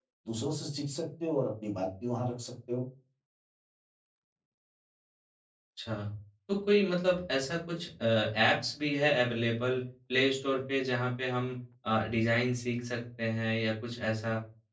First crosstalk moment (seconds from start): none

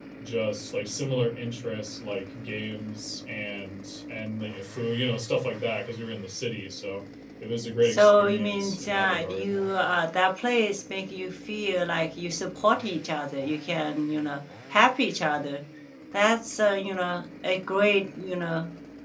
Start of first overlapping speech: 8 s

